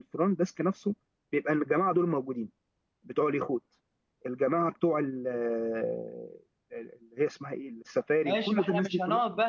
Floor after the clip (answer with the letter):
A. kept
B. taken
B